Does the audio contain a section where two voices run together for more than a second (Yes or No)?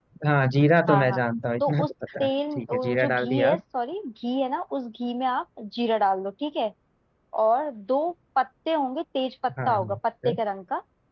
Yes